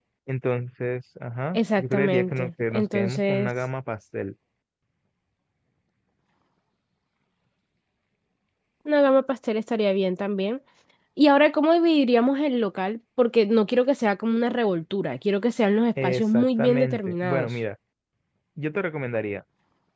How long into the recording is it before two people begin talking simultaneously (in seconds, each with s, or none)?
1.5 s